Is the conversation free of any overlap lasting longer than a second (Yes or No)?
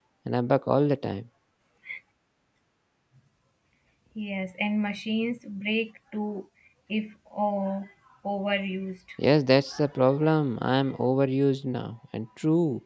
Yes